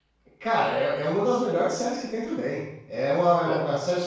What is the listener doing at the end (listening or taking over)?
listening